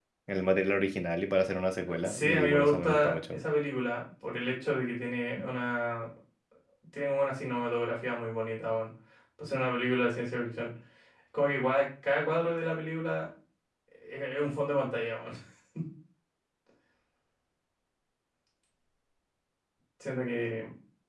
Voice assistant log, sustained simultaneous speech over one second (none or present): present